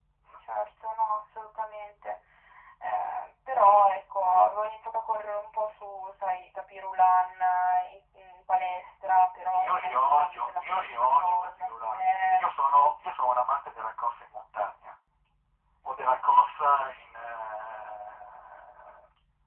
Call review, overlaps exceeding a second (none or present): present